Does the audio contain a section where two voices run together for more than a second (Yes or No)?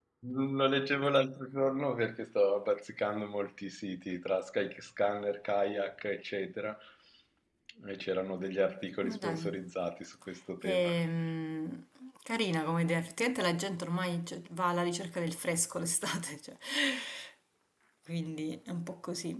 No